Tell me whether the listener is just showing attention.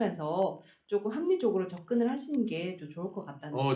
No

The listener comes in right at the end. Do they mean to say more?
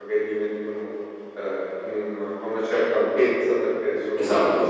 No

